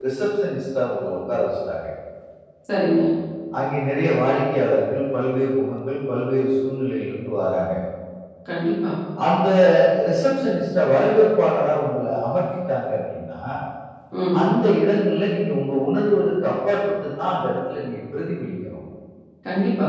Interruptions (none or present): none